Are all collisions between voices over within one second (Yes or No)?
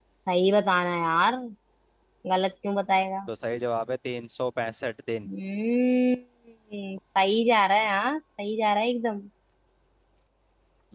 Yes